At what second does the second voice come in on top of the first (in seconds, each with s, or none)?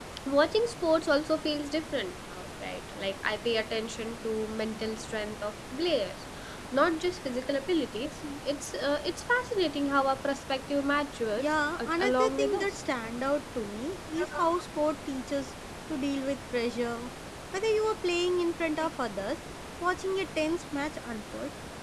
11.4 s